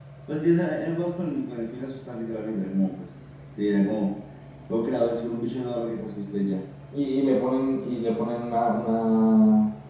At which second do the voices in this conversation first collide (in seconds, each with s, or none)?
none